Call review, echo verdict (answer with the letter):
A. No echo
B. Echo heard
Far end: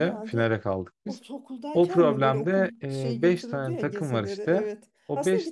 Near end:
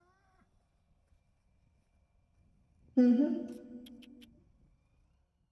A